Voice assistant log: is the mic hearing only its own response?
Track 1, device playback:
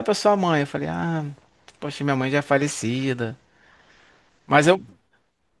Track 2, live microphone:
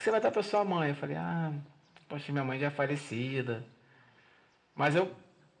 Yes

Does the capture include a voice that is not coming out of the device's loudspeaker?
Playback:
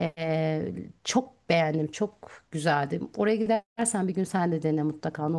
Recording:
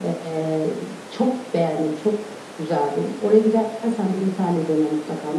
No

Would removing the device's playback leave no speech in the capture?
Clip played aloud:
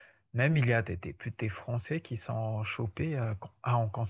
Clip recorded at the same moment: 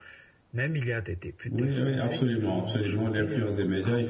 No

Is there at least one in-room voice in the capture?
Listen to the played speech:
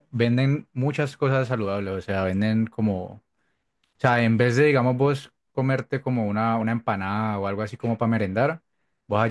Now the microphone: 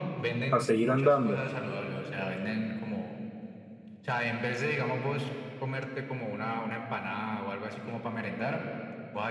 Yes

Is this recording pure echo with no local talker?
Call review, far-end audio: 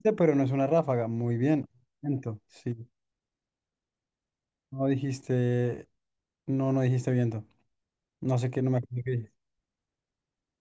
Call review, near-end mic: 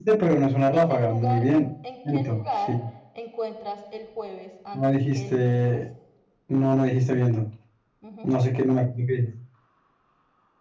No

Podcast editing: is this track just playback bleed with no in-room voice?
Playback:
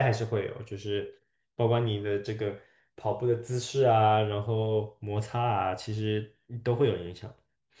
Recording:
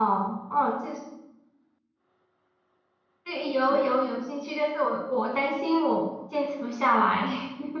No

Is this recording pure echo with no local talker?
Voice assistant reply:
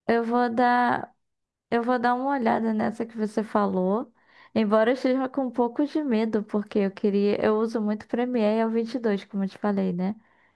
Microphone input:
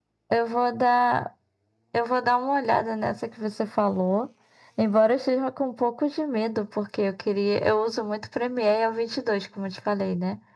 Yes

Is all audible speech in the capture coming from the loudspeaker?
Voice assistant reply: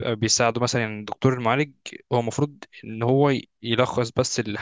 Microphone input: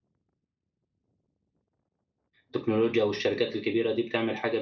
No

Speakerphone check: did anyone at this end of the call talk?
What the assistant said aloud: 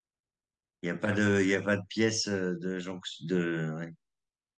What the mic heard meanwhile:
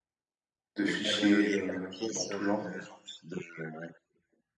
Yes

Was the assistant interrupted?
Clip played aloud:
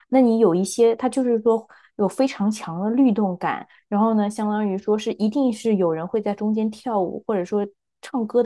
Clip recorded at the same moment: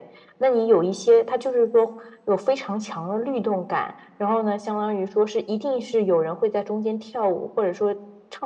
No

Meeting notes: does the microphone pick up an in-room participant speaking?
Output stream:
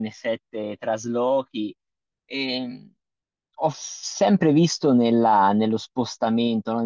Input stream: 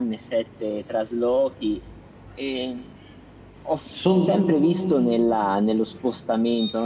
Yes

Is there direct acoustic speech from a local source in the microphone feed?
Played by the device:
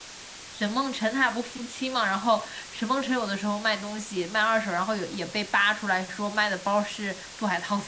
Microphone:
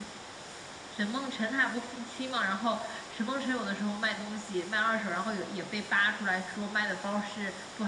No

